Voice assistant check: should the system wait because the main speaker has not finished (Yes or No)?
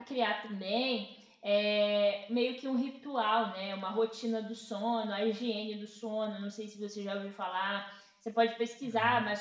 Yes